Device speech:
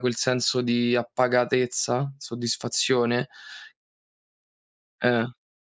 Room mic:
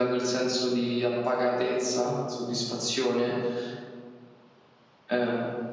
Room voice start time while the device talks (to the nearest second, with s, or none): none